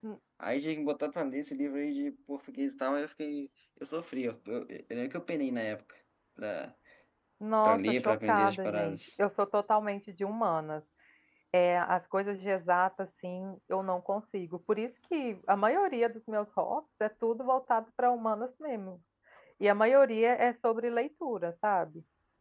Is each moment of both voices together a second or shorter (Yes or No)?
No